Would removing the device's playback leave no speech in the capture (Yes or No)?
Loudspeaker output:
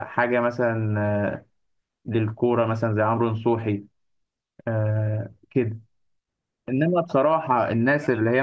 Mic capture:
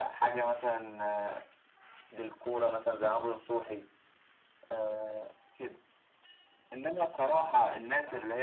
Yes